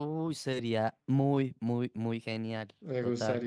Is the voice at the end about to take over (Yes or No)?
Yes